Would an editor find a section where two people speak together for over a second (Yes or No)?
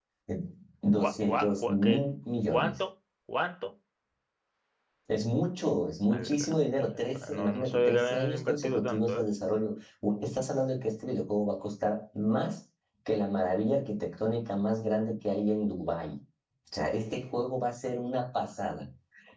Yes